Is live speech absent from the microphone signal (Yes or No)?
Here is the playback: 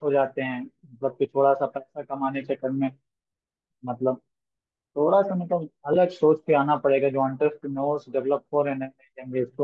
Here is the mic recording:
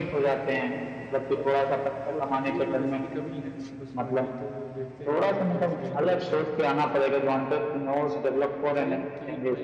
No